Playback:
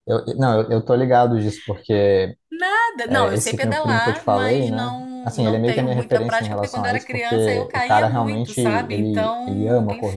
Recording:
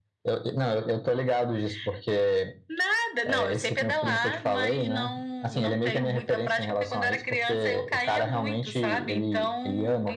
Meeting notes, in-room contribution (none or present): none